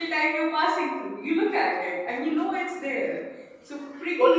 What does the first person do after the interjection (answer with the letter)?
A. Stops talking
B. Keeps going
A